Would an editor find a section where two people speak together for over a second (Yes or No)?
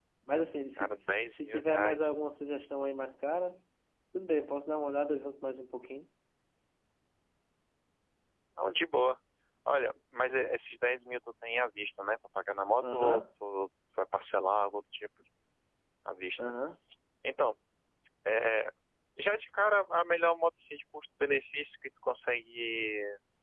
Yes